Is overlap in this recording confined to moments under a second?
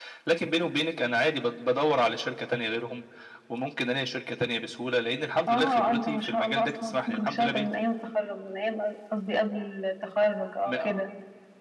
No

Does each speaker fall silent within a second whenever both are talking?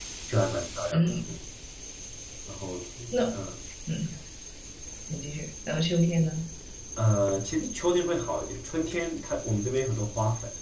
Yes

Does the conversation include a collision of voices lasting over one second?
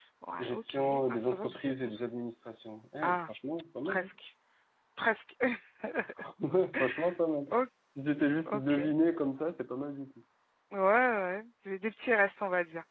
Yes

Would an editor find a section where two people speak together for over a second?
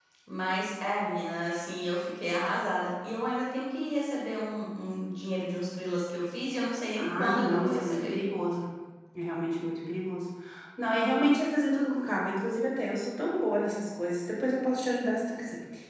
Yes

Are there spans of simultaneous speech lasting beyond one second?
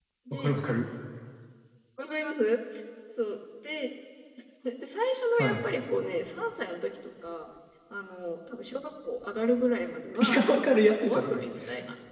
Yes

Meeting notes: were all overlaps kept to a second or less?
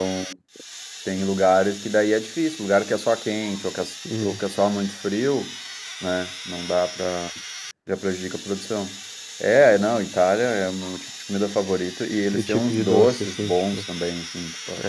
No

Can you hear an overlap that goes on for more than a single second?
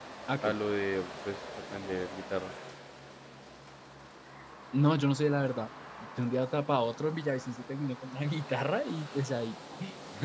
No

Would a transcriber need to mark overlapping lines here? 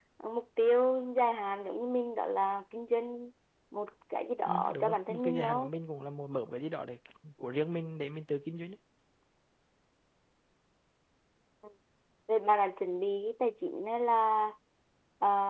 Yes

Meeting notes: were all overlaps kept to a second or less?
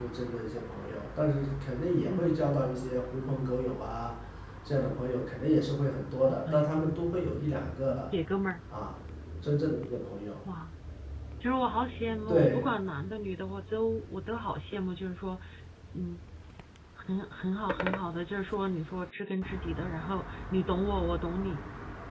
Yes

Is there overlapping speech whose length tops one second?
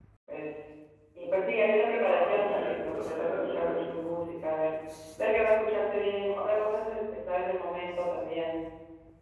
Yes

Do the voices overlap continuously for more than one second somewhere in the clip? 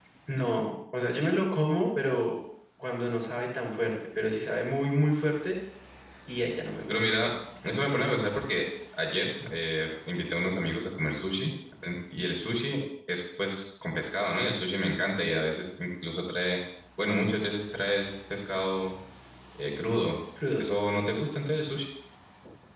No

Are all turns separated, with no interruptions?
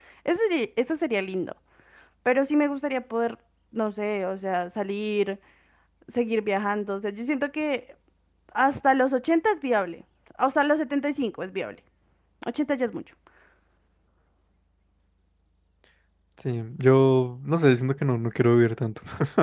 Yes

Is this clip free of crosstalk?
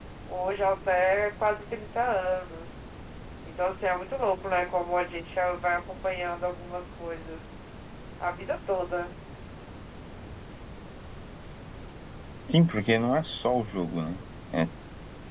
Yes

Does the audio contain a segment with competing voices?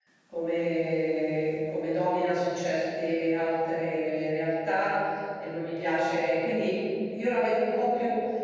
No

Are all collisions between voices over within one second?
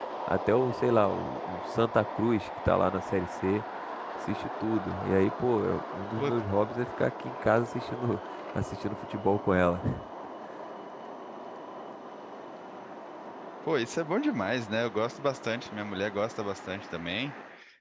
Yes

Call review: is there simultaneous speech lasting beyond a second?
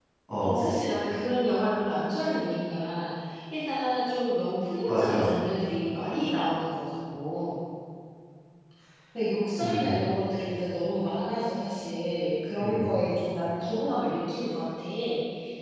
No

